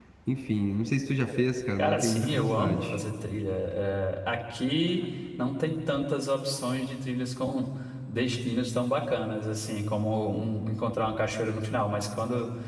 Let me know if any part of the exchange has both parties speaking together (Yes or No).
Yes